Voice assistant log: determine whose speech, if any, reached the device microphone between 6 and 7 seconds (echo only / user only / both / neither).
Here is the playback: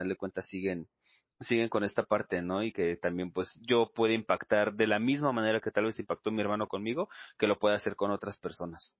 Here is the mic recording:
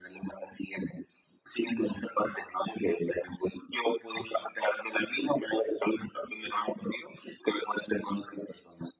echo only